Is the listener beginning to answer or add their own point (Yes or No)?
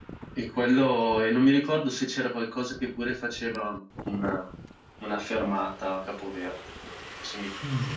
Yes